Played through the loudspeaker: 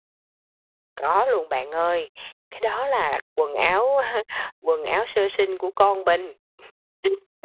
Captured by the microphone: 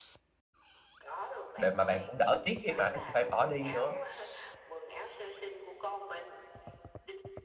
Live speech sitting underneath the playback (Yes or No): No